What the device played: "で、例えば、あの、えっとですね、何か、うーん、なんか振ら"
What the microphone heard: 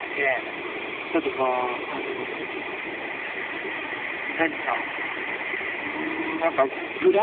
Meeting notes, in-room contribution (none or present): none